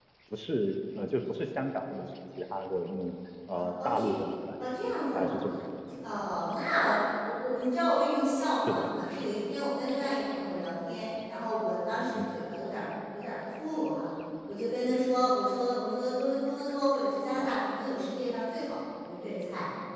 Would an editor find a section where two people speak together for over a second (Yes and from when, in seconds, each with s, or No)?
No